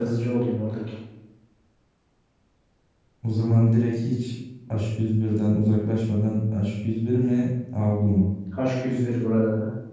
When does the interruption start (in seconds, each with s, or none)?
none